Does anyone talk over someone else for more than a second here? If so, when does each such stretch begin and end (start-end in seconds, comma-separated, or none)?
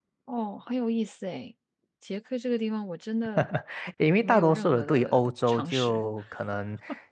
4.2-6.0